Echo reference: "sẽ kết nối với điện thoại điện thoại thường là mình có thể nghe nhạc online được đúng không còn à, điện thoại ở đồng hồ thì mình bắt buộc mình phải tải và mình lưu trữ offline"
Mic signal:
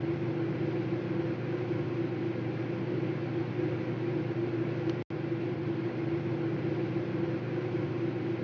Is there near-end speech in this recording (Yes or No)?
No